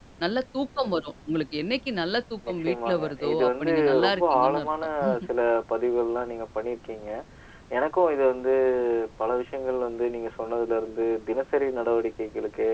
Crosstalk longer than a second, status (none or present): present